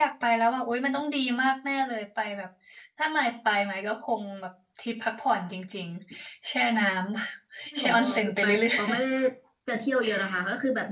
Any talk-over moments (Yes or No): Yes